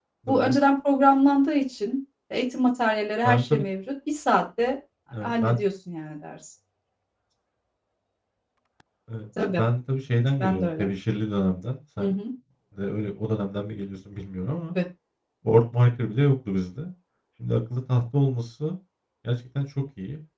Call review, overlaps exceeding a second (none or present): none